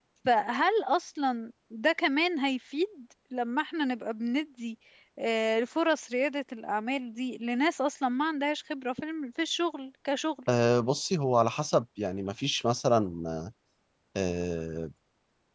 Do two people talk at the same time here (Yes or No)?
No